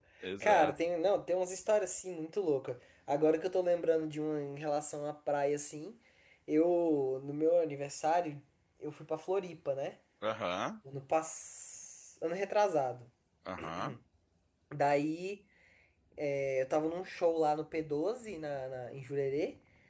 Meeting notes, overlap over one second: none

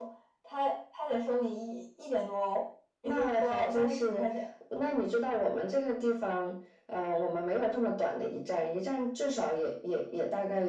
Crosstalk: present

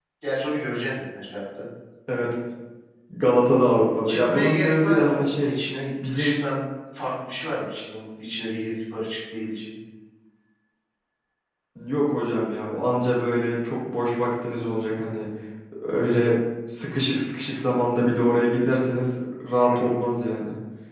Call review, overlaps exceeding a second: present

